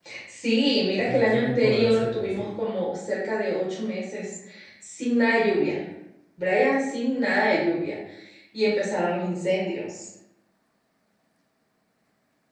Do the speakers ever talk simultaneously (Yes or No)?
Yes